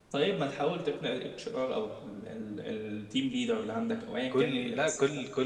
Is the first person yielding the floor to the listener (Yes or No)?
Yes